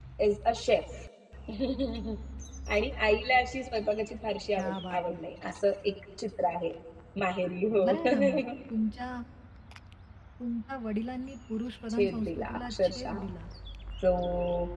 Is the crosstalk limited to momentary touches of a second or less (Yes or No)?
No